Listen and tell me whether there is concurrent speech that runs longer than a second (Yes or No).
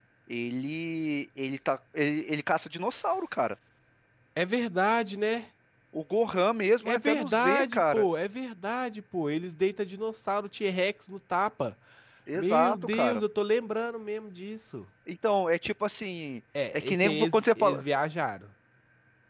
Yes